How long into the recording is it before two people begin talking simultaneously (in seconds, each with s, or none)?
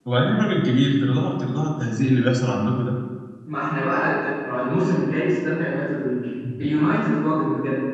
none